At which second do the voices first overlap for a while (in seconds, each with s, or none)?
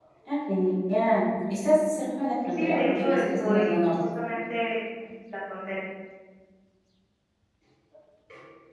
2.5 s